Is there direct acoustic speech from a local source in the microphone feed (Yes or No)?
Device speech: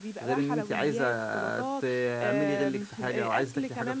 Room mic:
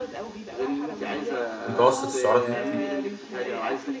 Yes